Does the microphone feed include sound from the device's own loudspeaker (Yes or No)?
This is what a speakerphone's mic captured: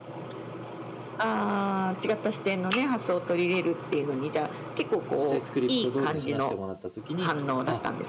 Yes